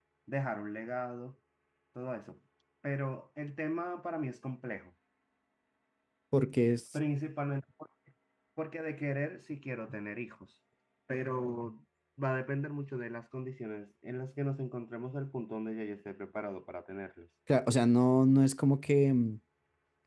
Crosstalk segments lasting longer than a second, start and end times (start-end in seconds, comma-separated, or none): none